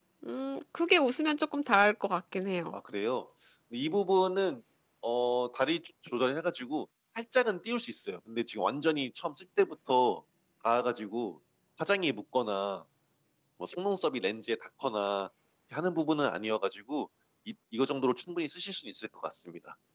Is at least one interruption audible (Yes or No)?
No